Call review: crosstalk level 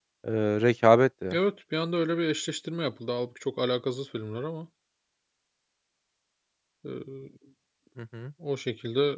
none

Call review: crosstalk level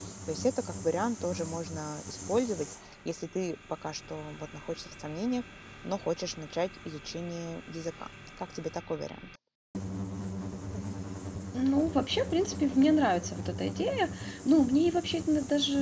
none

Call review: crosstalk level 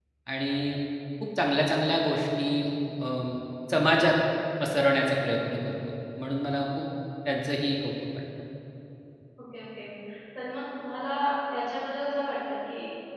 none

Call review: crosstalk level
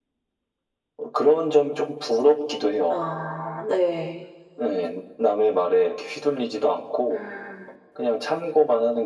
none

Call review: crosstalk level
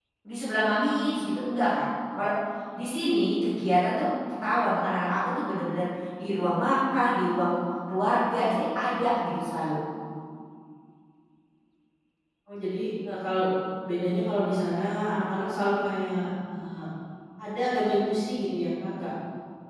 none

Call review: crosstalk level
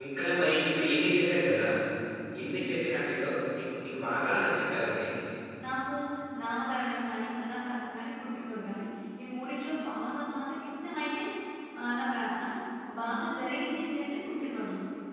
none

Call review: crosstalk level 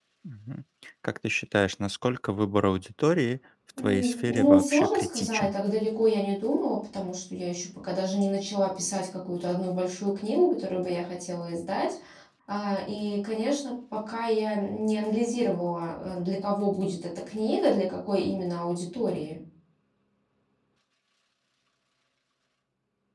present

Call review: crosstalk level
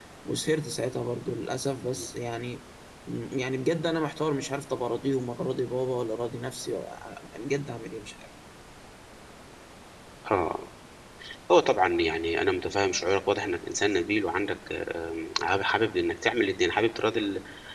none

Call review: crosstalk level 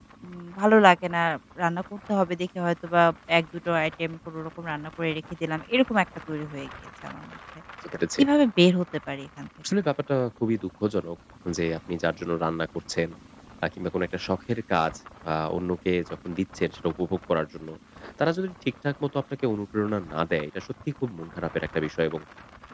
none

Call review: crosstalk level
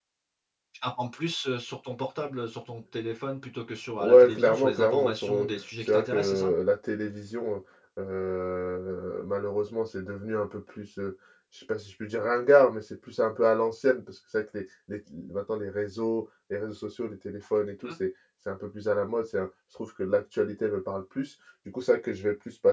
present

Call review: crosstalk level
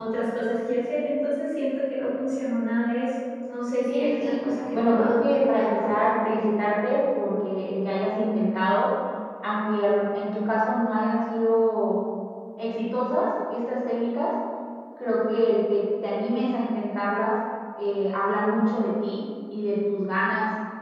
present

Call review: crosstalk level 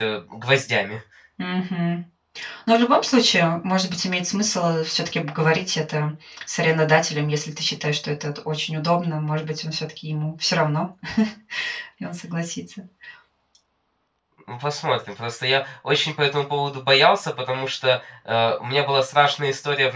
none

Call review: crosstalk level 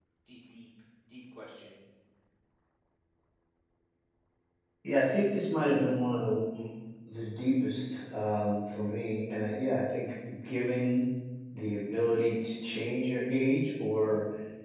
none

